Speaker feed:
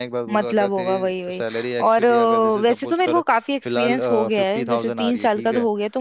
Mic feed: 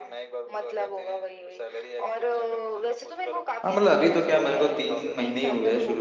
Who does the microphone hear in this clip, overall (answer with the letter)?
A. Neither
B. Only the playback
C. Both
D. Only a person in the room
C